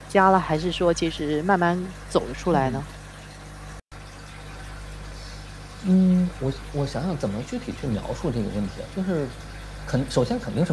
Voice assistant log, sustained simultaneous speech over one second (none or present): none